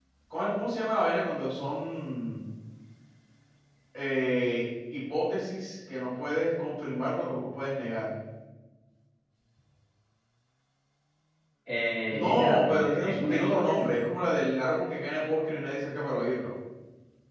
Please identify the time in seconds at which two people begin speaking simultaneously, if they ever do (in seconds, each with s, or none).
12.1 s